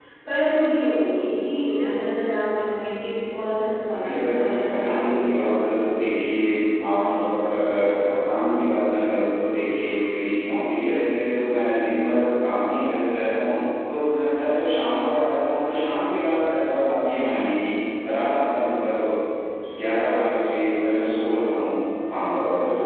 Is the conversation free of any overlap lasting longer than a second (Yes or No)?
No